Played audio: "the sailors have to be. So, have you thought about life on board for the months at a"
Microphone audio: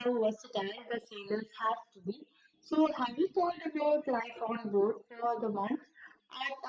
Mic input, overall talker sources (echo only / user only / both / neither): echo only